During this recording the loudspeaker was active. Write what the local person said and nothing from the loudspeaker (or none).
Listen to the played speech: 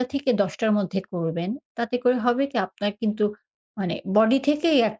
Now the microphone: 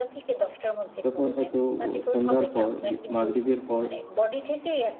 তখন হয়তো ও সন্ধ্যার পর, বি মাগরিবের পর